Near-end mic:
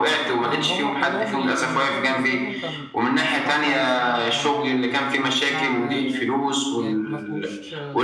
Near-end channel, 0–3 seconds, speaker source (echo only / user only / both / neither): both